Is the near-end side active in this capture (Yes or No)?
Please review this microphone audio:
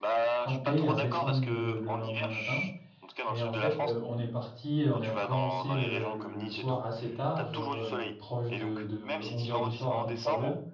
Yes